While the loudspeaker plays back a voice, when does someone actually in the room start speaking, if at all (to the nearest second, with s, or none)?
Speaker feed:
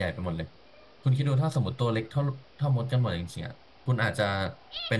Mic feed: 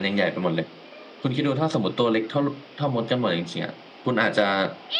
none